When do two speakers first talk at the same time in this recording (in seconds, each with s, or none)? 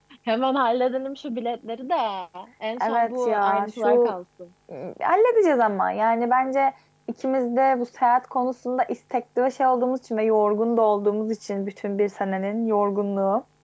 2.8 s